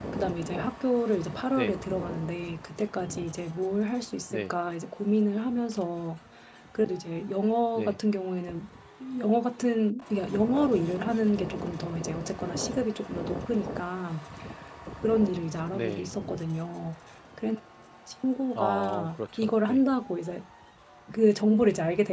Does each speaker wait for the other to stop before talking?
No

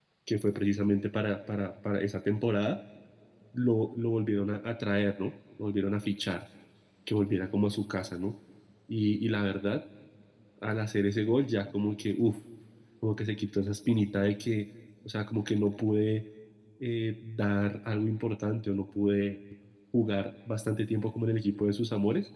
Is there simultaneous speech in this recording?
No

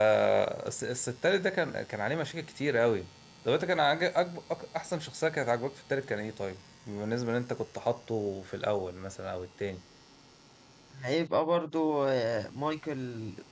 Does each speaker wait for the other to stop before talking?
Yes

